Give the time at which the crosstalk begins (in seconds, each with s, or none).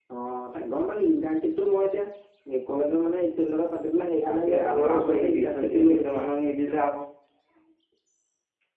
4.2 s